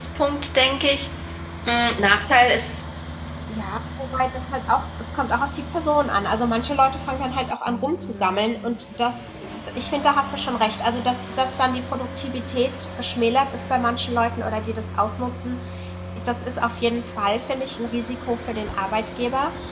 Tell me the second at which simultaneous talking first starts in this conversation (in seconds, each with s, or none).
none